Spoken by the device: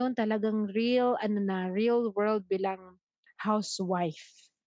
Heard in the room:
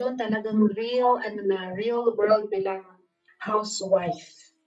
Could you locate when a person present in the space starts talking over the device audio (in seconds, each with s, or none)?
none